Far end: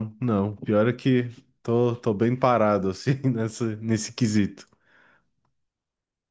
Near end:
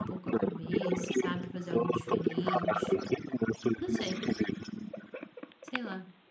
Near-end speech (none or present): present